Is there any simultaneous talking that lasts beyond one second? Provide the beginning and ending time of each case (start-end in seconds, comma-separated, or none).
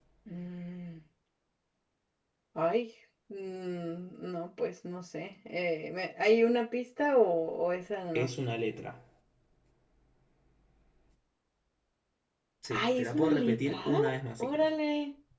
12.7-14.0